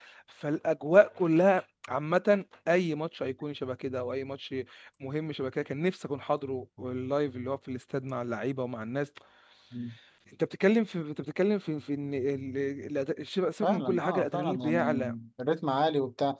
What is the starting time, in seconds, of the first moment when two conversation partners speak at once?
13.6 s

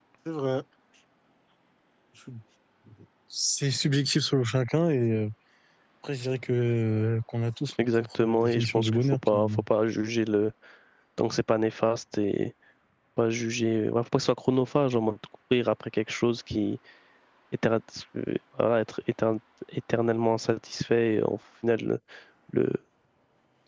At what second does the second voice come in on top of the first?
7.8 s

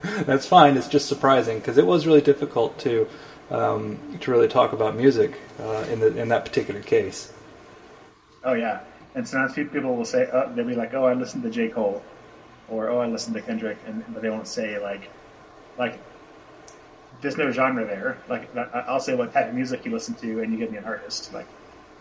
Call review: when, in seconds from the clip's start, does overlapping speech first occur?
none

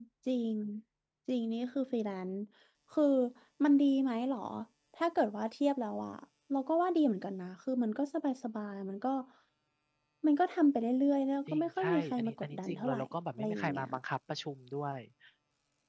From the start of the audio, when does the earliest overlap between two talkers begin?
11.5 s

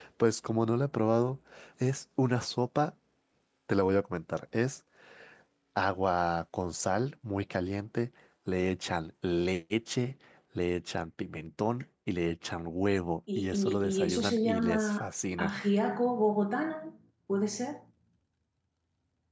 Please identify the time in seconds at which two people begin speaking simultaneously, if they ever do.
13.3 s

